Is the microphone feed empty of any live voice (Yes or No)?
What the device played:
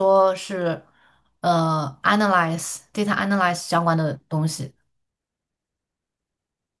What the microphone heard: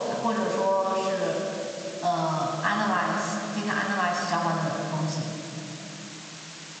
Yes